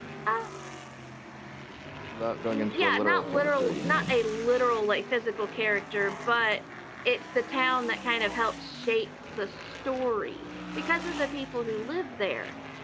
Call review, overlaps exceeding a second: present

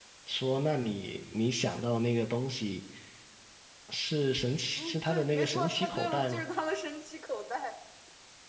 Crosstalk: present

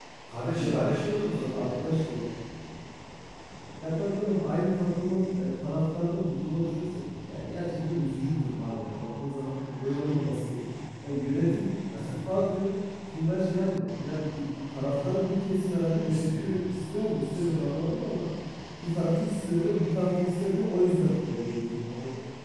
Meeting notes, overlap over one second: present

